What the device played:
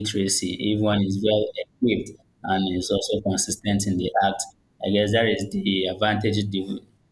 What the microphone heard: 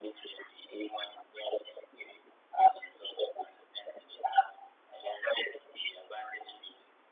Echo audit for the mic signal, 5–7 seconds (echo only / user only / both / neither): echo only